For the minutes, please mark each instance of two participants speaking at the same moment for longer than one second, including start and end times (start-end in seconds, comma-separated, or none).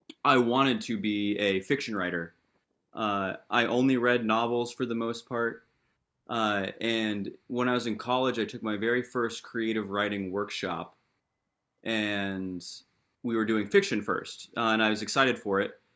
none